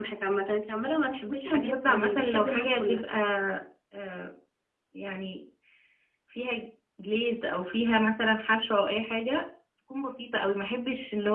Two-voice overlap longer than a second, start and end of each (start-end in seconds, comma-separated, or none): 1.3-3.0